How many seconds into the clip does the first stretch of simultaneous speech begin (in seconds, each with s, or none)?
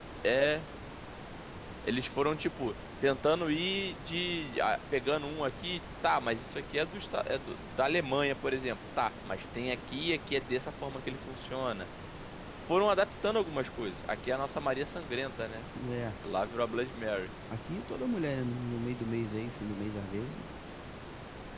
none